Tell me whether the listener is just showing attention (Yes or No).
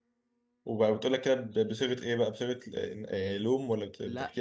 No